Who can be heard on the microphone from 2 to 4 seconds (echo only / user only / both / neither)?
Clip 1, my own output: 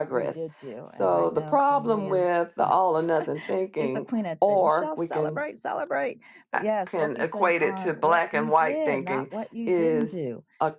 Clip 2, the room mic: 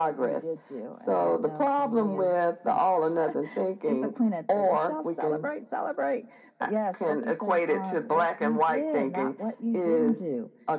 echo only